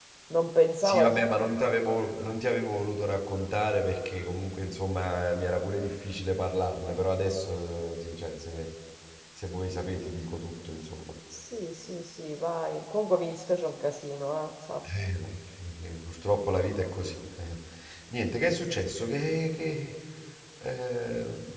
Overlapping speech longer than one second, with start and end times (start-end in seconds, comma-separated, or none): none